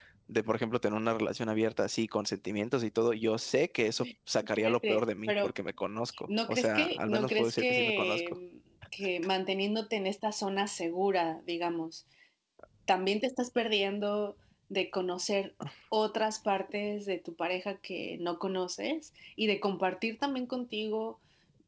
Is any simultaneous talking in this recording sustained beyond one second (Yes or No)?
Yes